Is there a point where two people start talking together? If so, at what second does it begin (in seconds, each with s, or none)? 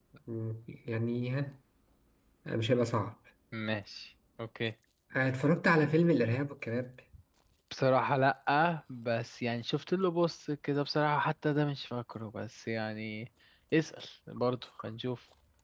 none